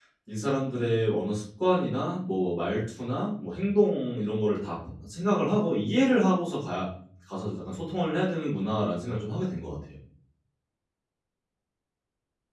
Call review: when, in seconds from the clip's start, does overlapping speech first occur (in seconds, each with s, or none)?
none